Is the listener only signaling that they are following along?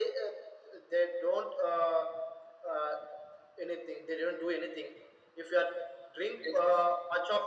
Yes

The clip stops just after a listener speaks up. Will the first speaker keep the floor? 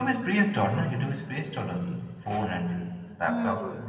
No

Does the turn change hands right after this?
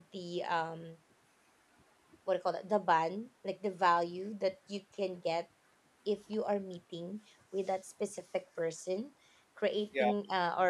No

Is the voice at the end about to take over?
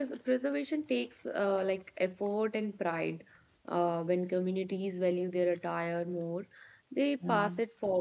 No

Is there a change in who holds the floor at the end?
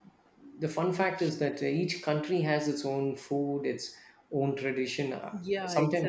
Yes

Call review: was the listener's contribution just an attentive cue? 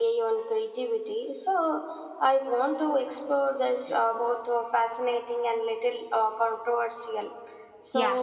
Yes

